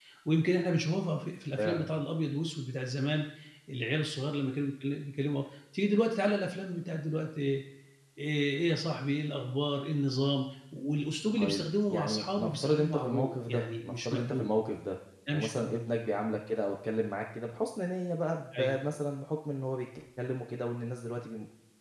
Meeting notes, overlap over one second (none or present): present